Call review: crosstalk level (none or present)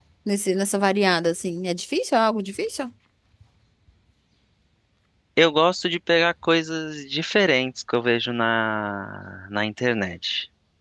none